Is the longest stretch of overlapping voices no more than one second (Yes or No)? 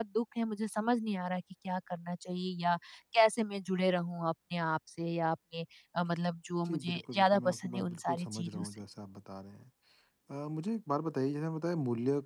No